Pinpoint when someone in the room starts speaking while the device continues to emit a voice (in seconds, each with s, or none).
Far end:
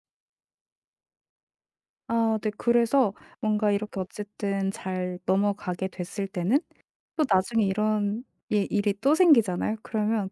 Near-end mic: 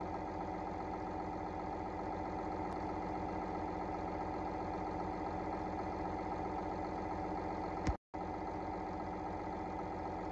none